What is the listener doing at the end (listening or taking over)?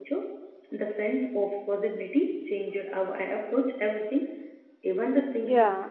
taking over